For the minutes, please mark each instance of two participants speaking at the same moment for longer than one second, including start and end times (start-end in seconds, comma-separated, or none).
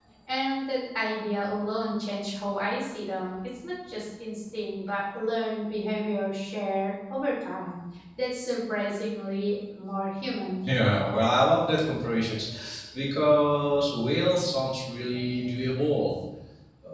none